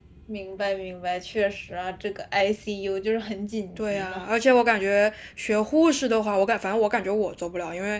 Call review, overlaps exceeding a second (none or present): none